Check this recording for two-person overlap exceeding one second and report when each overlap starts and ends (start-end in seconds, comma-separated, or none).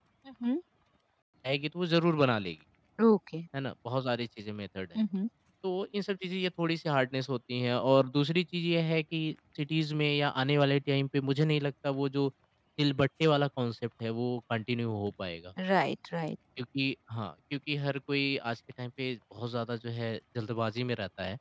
none